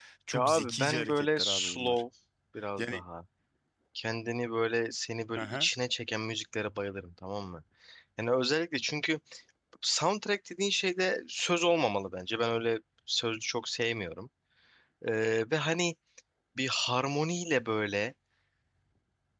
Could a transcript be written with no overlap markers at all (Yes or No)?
No